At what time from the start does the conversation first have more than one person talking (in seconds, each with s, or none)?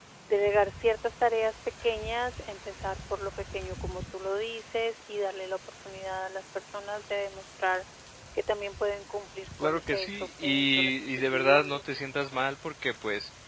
9.6 s